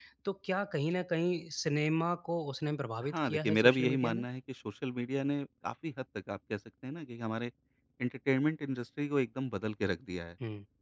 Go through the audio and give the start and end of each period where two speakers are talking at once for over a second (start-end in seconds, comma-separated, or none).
3.0-4.2